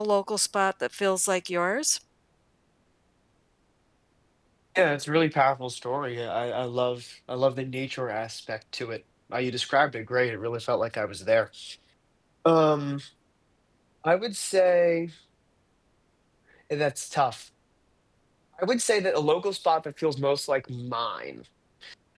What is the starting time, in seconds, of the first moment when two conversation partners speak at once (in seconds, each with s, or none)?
none